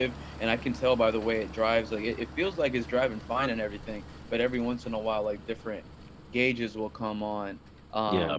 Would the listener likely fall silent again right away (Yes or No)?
Yes